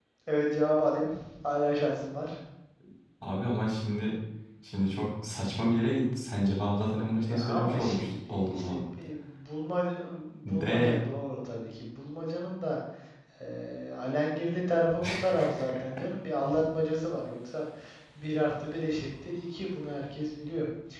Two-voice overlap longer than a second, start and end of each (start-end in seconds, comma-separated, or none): 7.3-8.8